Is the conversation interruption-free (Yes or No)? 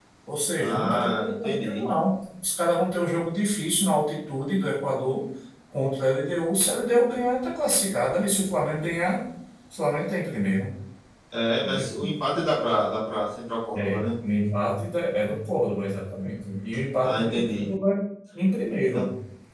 No